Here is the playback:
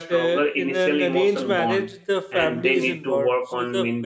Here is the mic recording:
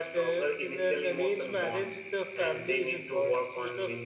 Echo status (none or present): present